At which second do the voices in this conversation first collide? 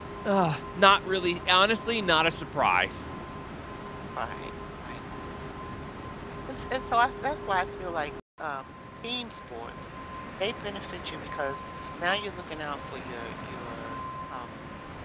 none

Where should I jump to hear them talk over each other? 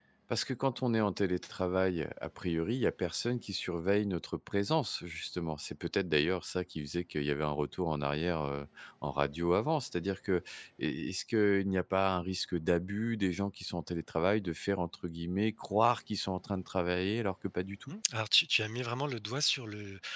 none

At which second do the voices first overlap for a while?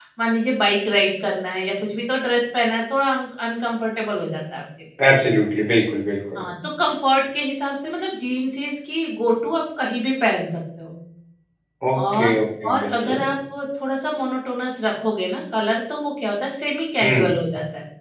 11.9 s

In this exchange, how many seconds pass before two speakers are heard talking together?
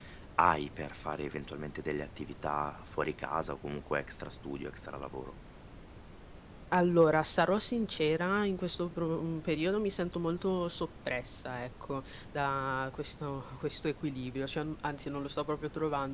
none

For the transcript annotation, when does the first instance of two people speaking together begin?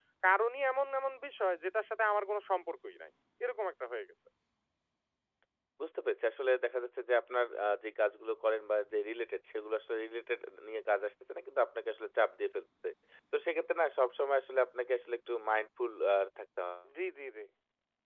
none

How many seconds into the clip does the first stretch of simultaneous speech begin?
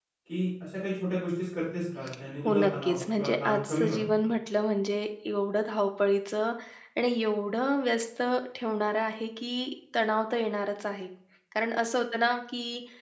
2.5 s

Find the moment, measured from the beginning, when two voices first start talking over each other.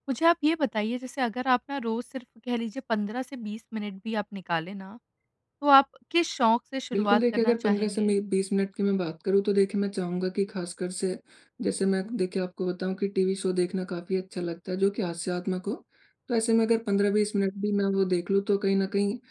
6.9 s

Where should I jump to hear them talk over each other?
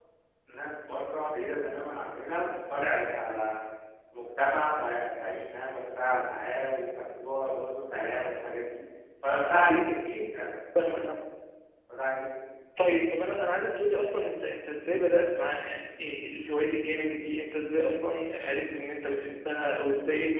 none

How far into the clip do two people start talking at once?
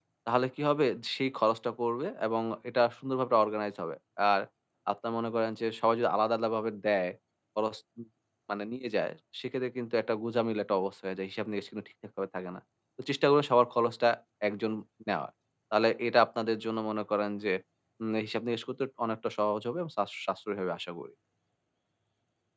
none

